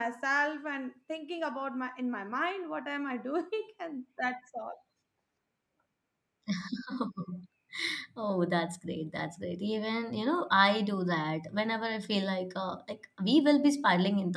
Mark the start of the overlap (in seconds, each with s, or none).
none